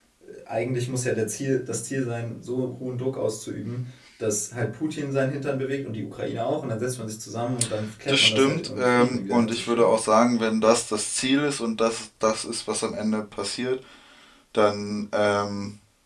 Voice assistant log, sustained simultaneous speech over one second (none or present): present